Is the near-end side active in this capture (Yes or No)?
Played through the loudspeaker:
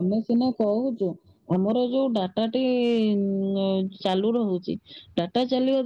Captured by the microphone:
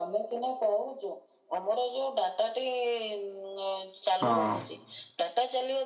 Yes